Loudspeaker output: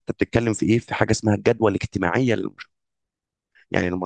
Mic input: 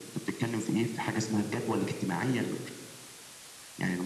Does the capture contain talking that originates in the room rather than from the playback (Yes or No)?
No